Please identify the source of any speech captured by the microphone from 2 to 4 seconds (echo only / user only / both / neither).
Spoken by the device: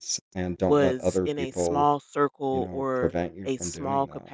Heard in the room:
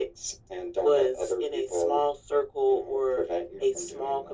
echo only